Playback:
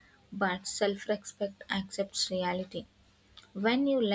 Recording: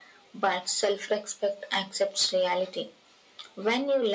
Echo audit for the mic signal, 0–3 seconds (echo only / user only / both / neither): echo only